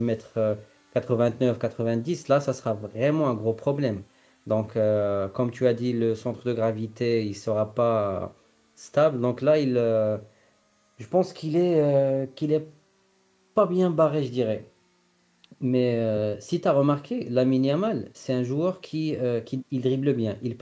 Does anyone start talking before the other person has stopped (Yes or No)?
No